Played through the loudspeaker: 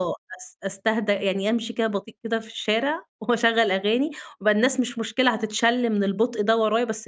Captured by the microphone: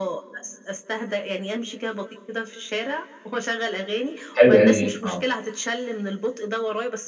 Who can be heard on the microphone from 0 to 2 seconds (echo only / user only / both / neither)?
echo only